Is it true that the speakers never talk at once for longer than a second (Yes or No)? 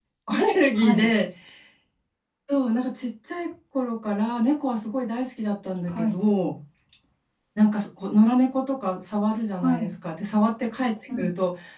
Yes